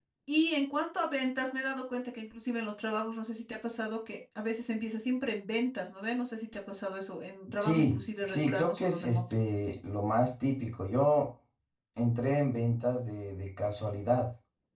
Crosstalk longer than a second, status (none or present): present